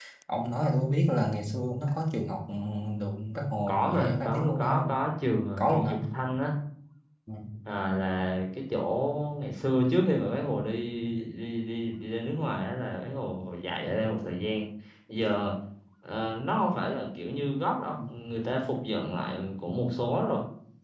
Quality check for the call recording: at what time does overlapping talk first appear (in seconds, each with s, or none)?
3.7 s